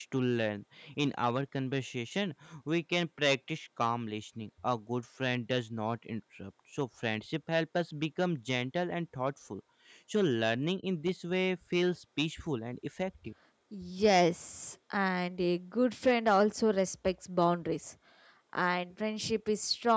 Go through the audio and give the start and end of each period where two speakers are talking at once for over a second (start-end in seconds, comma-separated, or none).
none